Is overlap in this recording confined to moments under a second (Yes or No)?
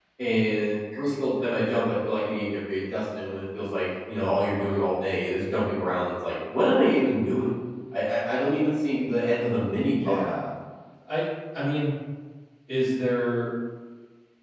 Yes